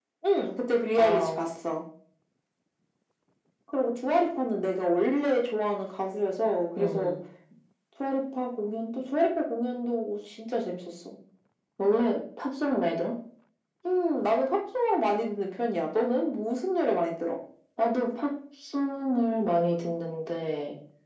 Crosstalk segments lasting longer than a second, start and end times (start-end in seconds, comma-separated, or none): none